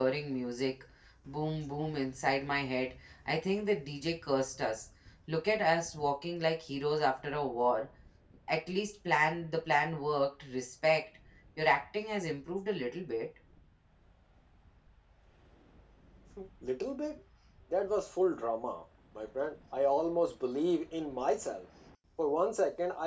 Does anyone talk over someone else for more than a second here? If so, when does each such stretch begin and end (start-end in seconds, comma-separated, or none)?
none